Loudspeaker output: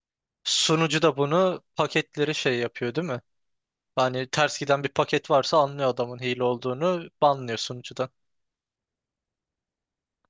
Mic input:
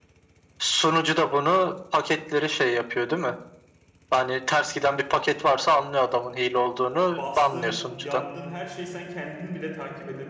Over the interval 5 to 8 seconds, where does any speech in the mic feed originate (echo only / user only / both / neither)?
both